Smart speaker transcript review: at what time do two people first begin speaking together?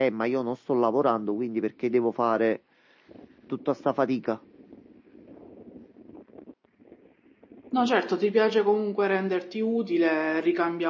none

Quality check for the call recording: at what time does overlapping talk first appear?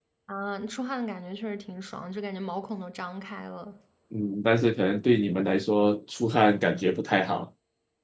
none

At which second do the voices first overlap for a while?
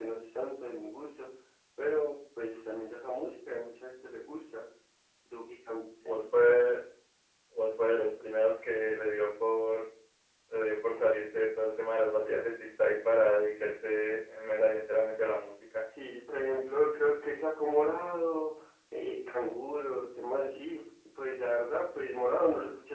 none

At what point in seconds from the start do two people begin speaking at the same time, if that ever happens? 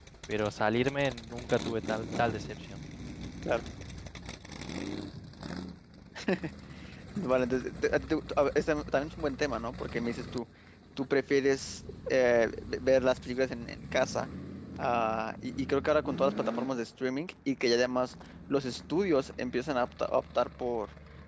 none

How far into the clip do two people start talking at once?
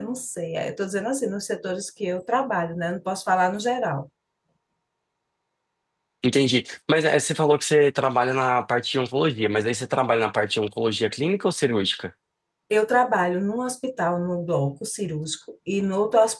none

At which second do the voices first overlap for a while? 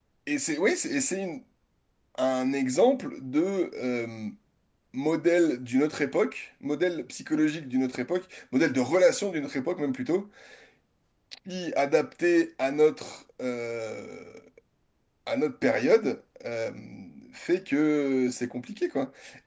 none

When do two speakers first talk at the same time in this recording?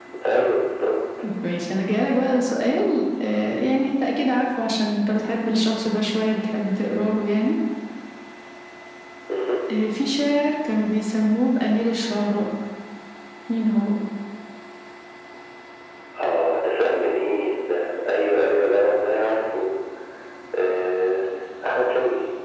none

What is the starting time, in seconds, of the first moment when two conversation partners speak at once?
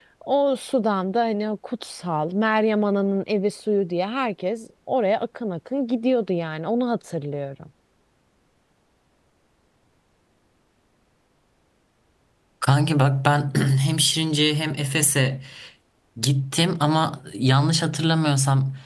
none

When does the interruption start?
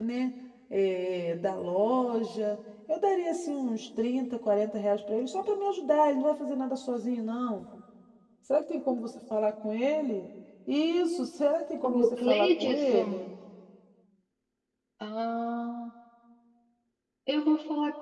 11.8 s

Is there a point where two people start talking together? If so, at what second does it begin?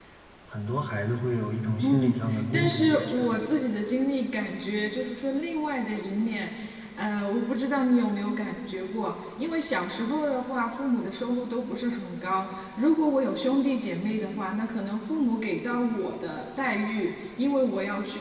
1.8 s

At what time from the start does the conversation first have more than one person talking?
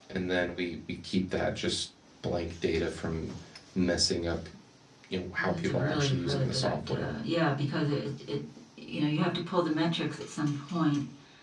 5.4 s

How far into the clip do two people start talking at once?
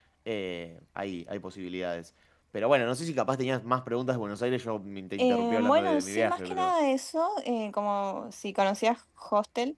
5.2 s

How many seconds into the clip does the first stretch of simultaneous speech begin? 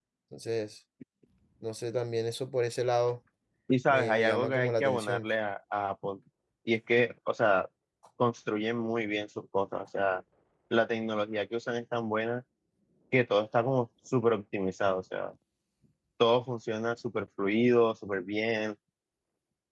3.9 s

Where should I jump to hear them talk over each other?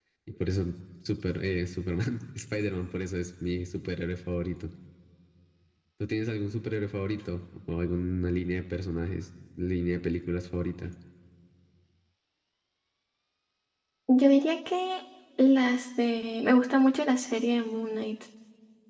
none

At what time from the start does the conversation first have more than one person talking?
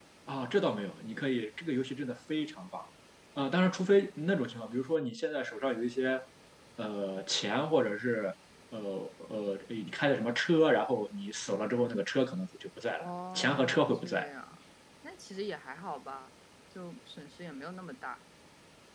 13.0 s

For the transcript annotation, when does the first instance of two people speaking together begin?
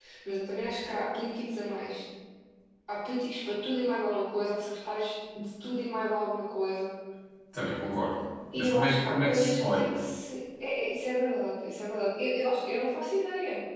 8.6 s

